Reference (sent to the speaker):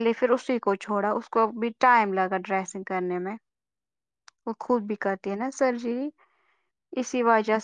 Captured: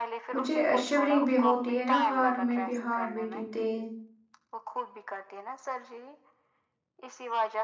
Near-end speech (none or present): present